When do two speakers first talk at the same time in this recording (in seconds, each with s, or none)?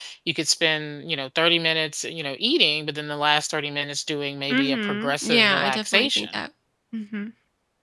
4.5 s